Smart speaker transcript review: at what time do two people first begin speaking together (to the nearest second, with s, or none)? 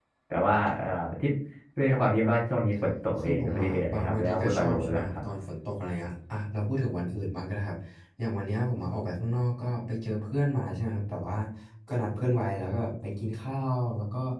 3 s